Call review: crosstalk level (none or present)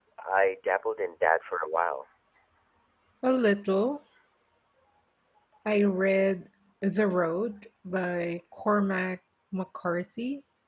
none